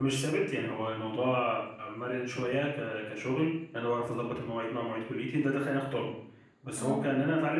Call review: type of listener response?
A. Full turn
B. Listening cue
B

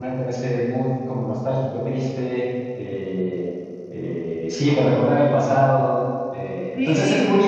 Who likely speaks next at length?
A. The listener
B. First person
B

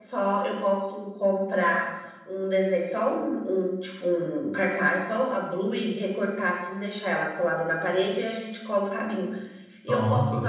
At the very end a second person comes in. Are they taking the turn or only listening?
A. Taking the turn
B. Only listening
B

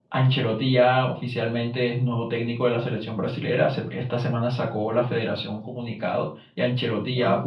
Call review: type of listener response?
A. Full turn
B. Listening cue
B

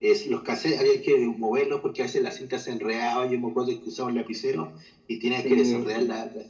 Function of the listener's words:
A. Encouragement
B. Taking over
A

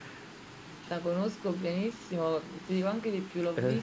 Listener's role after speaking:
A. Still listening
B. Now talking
A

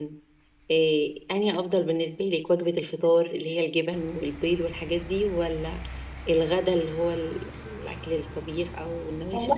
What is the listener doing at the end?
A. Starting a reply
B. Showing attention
A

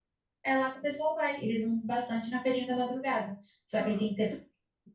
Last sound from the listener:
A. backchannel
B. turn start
A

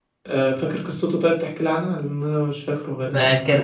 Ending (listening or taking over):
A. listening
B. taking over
B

